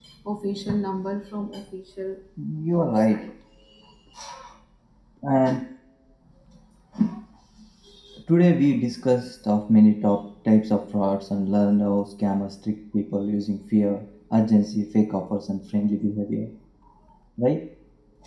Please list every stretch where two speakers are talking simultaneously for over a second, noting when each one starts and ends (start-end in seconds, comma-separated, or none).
none